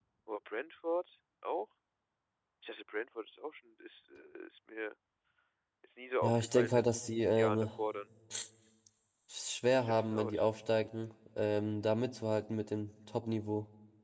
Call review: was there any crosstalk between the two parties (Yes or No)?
Yes